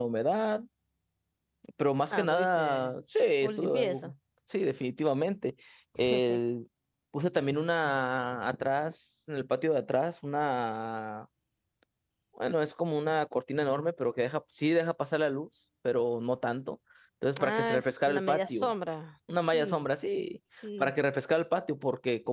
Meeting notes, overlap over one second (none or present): present